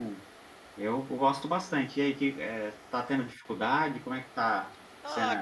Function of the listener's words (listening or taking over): taking over